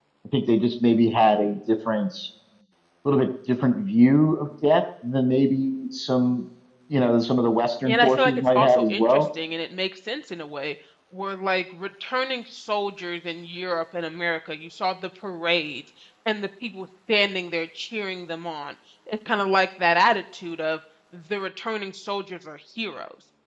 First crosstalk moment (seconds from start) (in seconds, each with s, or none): 7.8 s